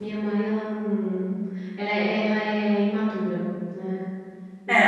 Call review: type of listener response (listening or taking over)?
taking over